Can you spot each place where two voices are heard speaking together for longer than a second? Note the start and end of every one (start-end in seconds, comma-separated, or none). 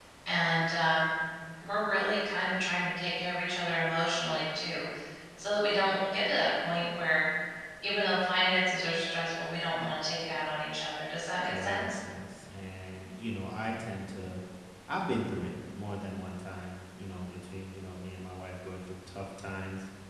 none